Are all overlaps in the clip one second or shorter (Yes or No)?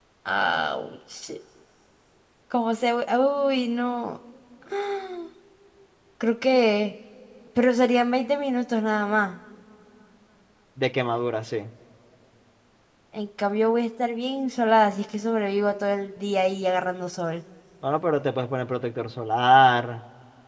Yes